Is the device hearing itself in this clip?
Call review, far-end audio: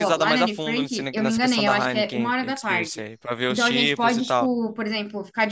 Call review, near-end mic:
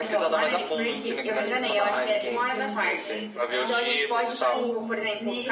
Yes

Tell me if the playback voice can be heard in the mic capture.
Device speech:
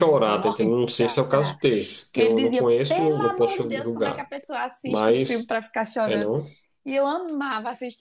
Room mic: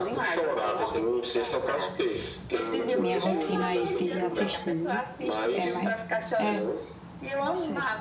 Yes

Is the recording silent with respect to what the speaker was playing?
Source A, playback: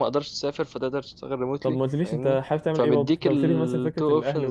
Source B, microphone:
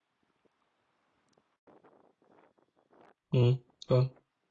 Yes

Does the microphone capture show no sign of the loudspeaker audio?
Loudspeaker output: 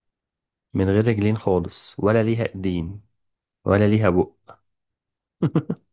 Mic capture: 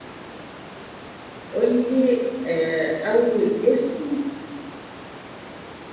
Yes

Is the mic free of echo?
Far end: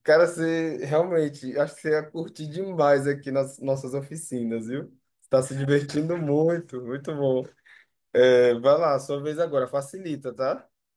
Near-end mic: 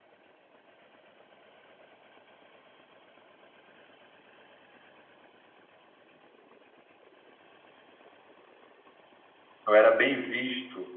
Yes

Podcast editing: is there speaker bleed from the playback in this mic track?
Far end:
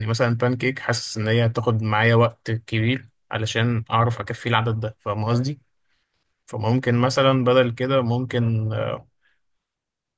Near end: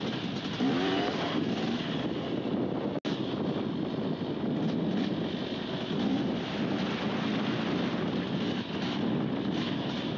No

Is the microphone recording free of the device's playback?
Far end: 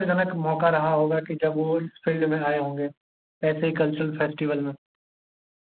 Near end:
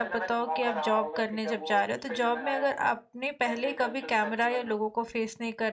No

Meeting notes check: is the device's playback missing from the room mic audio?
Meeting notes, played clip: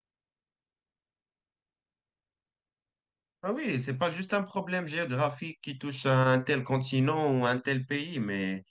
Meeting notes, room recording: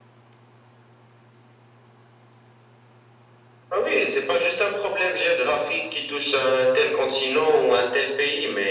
No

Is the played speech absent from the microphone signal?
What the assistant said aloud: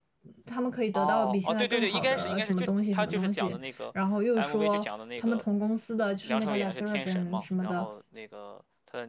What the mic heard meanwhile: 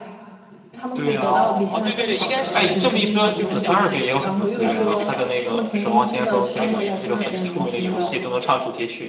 No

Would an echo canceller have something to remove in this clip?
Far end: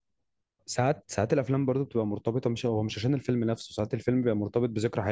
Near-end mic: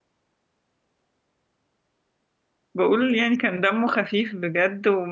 No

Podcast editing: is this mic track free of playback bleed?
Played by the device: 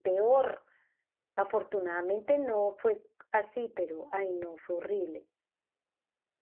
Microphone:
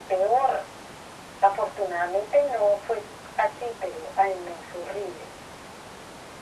No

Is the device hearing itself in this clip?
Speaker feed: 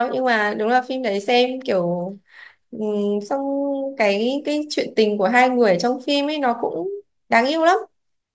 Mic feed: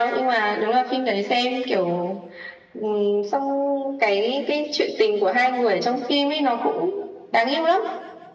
Yes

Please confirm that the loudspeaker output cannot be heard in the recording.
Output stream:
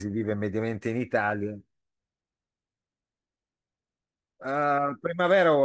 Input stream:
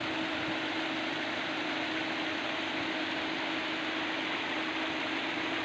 Yes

